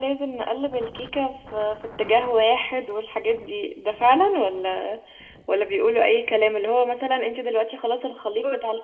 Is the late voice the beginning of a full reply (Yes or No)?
No